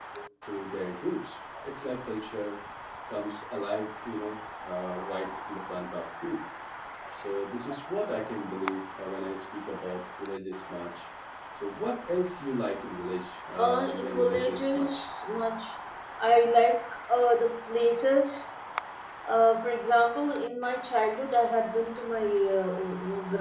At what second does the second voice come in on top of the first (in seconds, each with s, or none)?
13.6 s